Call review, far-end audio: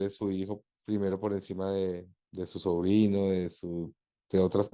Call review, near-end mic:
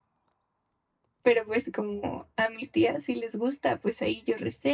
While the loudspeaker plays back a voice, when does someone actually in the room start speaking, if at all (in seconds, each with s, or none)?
1.2 s